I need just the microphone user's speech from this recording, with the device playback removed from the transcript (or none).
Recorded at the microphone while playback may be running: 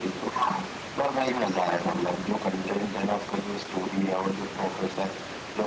none